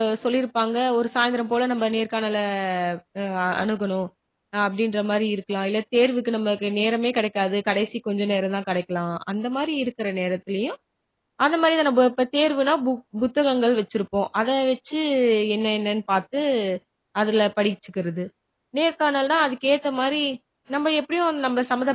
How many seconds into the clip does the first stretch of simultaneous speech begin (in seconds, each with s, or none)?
none